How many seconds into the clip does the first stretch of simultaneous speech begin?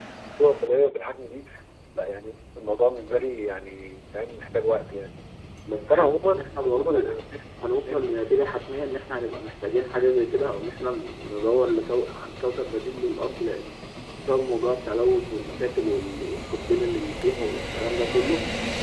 5.9 s

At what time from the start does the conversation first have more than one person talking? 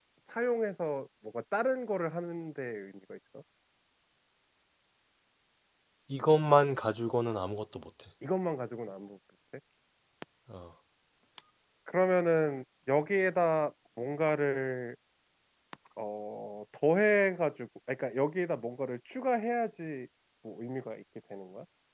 none

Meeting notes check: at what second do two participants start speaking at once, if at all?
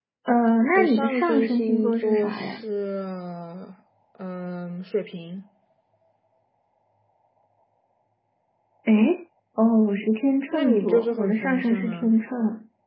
0.8 s

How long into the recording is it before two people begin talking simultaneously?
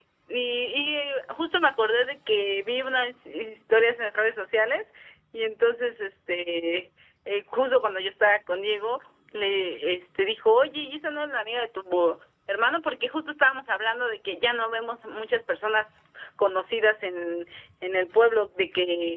none

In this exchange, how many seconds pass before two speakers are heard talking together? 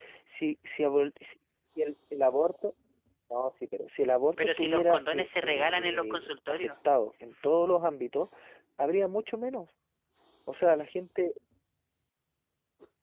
4.4 s

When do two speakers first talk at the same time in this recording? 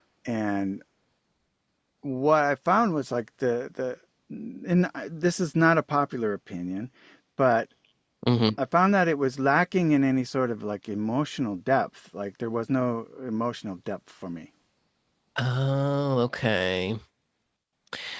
none

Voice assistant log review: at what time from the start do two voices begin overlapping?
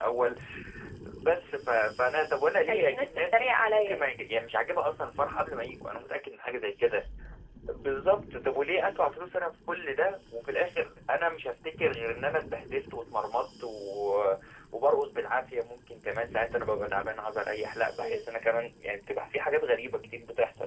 2.7 s

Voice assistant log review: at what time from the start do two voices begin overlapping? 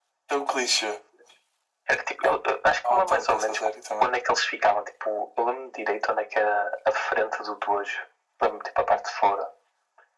2.2 s

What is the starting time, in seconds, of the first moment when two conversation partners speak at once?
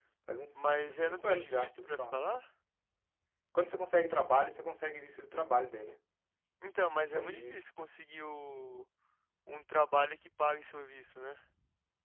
0.6 s

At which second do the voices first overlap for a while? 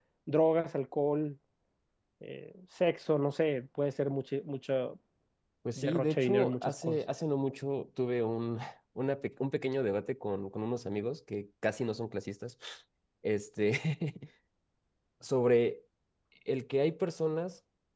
5.8 s

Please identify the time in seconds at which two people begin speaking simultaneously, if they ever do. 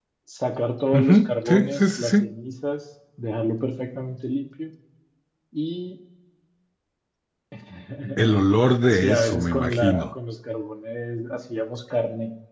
0.9 s

